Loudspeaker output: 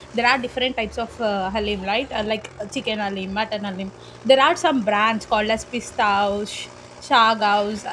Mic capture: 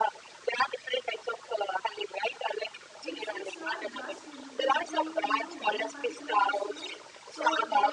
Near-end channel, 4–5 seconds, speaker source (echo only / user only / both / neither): both